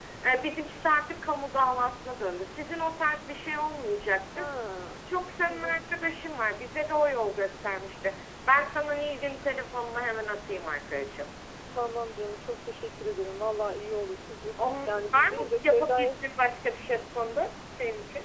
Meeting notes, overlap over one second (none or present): present